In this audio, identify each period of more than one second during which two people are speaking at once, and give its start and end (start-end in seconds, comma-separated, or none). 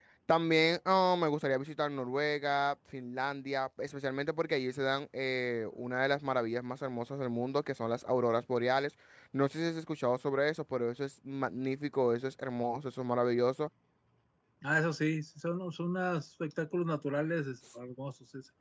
none